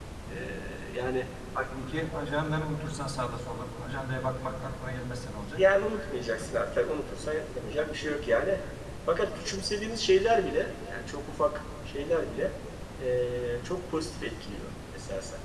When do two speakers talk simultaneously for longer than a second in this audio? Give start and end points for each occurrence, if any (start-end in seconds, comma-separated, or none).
none